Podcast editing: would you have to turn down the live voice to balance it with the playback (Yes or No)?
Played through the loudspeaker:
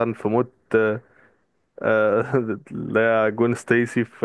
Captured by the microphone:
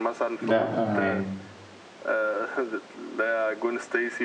Yes